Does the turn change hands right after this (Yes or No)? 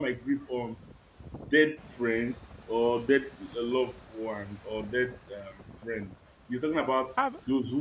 No